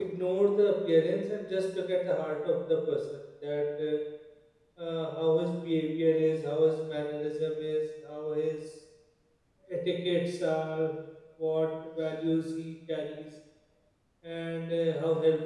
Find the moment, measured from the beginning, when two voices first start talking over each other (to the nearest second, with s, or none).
none